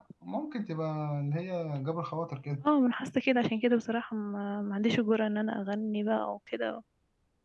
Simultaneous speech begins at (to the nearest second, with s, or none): none